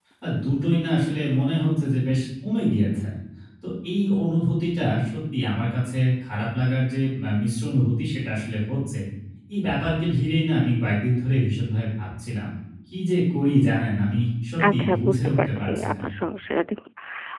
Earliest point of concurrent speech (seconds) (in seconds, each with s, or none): 14.6 s